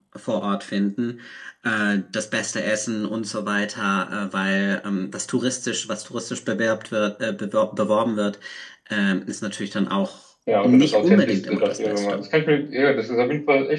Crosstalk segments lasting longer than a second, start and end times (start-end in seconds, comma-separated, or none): 10.6-12.2